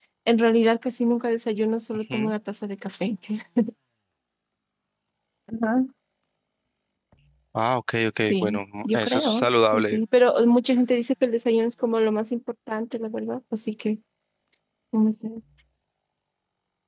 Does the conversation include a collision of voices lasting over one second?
Yes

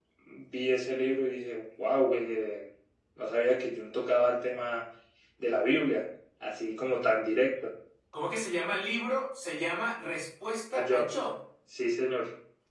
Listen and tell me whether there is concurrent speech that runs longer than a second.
No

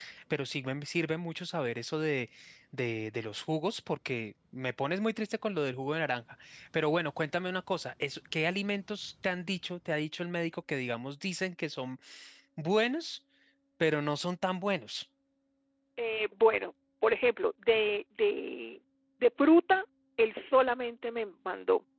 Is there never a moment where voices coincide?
Yes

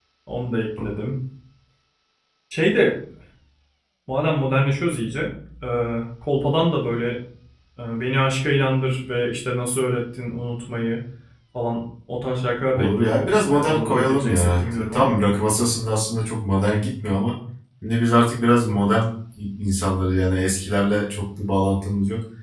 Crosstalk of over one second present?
Yes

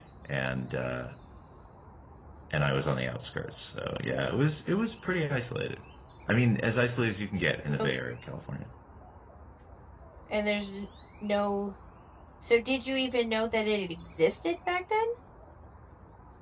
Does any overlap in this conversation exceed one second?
No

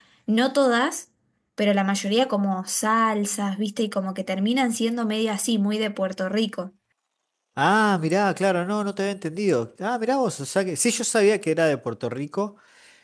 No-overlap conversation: Yes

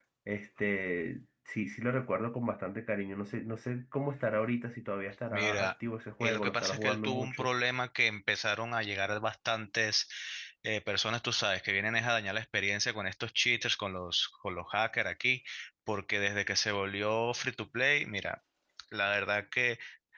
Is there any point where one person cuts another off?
Yes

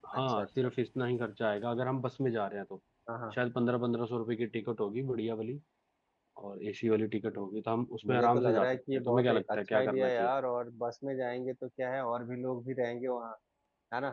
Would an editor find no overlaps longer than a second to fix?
No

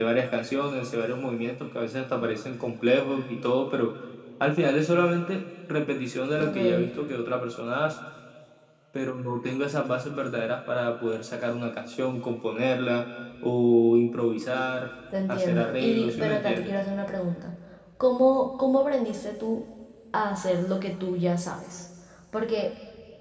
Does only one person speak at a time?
No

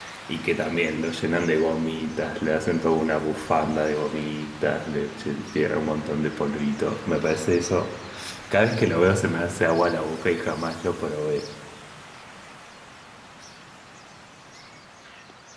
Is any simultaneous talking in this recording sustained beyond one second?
No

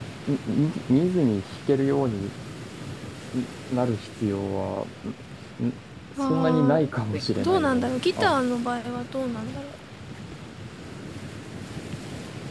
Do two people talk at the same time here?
Yes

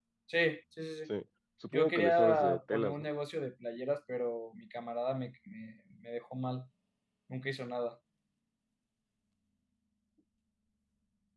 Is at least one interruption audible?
Yes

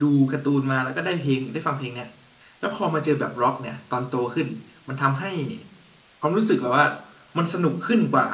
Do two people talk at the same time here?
No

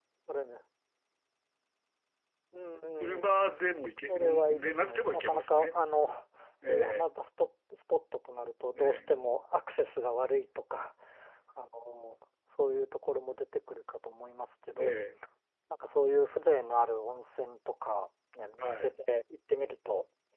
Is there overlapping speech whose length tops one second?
Yes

